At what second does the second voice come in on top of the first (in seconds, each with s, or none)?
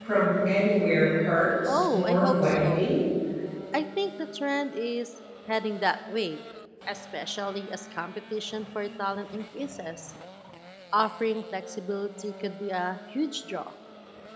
1.7 s